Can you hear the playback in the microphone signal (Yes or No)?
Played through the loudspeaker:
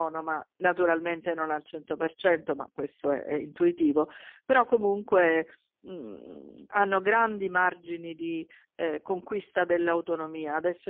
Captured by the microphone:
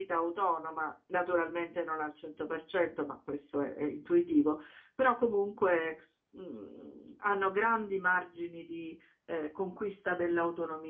Yes